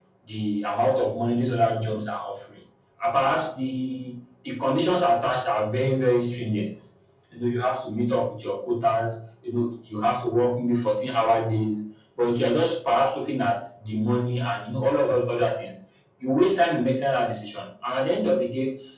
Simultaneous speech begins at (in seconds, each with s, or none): none